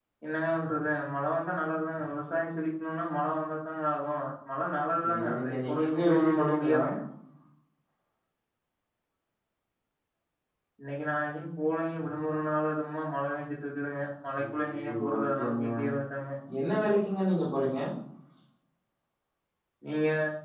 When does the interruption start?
5.0 s

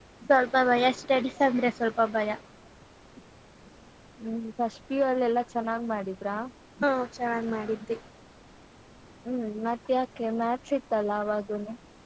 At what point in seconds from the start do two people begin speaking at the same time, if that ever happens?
none

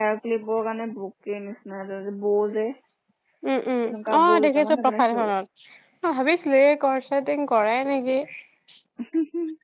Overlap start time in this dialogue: 3.8 s

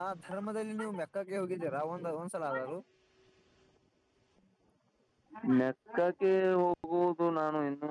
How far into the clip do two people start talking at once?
none

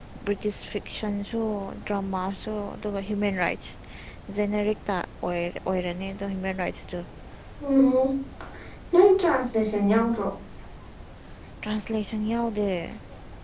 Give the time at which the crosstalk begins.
none

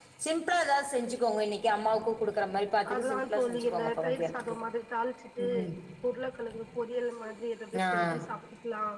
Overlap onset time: 2.9 s

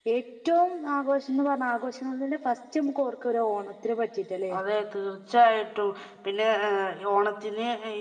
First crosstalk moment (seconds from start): none

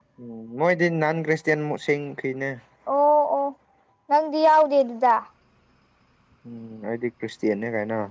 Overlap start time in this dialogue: none

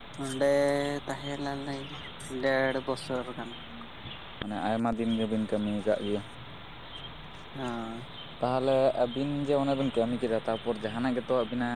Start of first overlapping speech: none

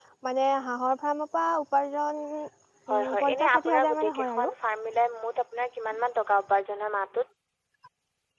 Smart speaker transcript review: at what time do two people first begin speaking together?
2.9 s

